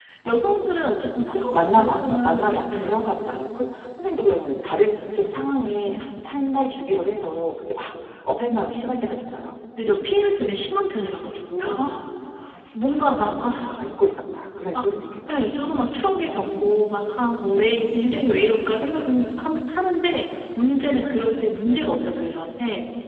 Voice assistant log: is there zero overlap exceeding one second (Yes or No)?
No